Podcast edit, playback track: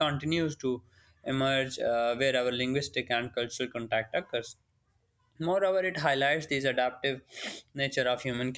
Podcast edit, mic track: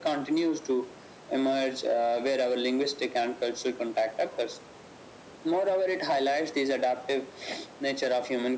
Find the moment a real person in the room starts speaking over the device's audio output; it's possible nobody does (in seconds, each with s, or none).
none